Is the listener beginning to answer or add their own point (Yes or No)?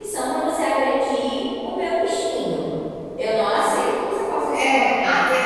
Yes